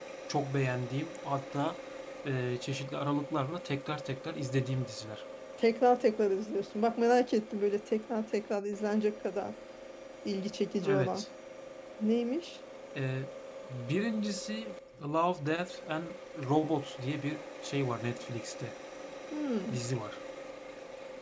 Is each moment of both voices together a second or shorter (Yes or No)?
Yes